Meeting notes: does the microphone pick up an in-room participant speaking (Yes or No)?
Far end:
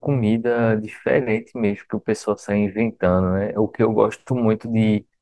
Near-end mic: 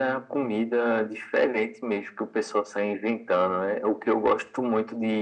No